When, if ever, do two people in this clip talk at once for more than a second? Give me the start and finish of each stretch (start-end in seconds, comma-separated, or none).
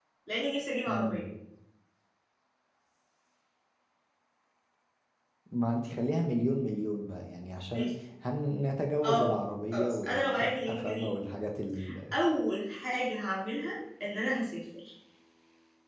9.7-11.1